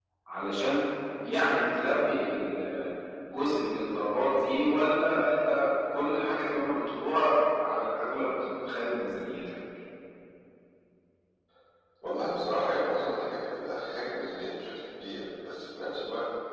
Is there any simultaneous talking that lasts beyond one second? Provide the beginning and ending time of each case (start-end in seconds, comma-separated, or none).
none